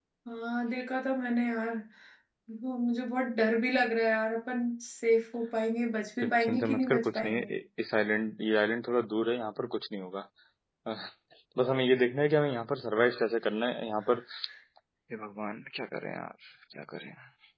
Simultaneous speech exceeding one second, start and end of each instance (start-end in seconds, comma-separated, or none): 6.2-7.5